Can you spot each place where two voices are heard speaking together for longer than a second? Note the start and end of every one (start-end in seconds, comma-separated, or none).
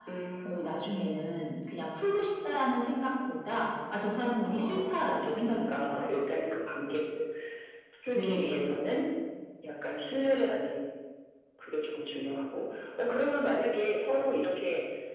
4.4-6.1